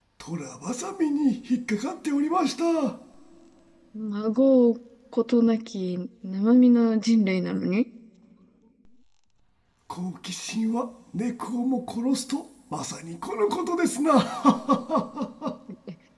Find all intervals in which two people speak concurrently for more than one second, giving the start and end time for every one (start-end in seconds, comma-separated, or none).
none